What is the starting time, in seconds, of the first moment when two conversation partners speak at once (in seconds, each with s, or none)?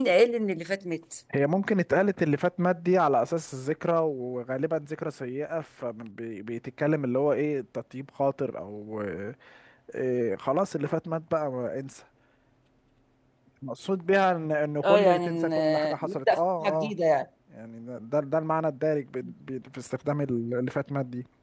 14.8 s